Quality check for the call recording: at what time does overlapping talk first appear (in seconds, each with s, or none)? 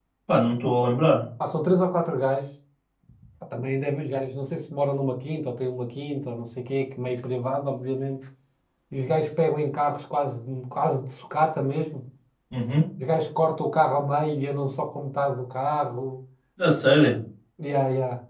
none